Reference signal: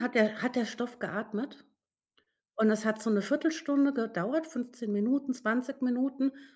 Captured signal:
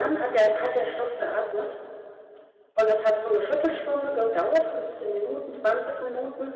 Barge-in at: none

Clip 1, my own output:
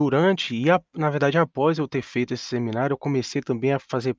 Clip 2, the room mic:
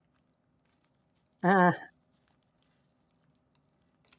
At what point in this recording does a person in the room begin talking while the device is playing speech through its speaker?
1 s

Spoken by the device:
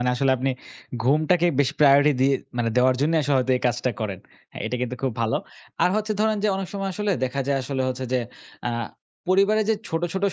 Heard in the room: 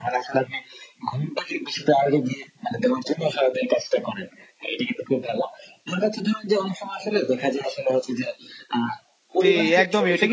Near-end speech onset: 9 s

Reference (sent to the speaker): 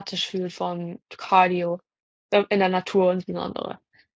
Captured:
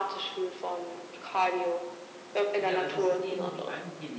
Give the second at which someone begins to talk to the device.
3 s

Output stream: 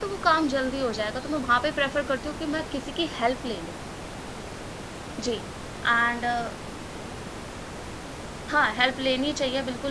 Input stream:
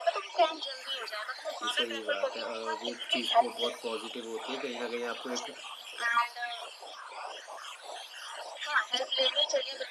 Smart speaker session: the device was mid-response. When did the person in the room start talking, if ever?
2 s

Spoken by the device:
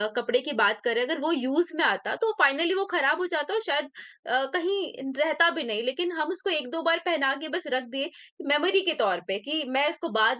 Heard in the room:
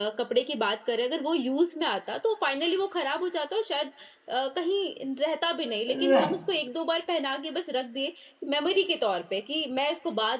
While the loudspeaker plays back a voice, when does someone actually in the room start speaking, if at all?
6 s

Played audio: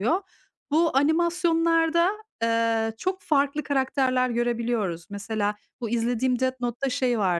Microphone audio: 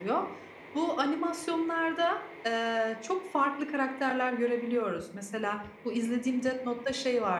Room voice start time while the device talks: none

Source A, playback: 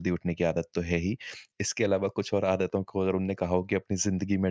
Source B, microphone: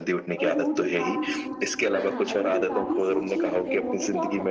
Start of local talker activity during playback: 0 s

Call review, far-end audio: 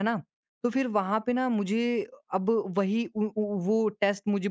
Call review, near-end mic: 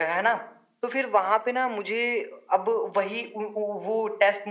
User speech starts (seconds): none

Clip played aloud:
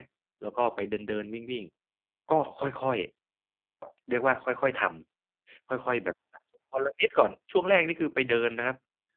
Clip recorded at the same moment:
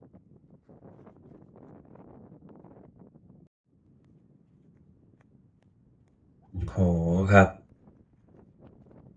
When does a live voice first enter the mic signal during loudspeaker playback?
7 s

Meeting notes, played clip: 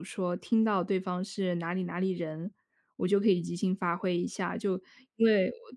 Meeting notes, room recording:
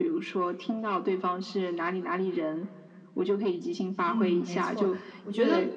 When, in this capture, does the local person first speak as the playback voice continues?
4 s

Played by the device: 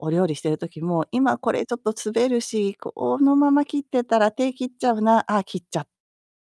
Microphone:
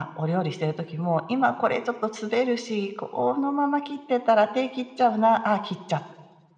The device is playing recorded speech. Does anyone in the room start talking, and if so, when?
none

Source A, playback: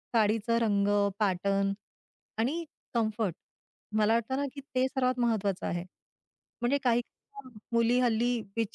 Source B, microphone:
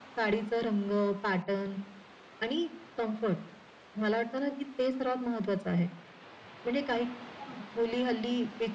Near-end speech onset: none

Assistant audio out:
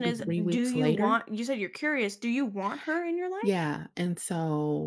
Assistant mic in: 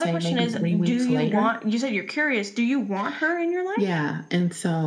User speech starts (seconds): none

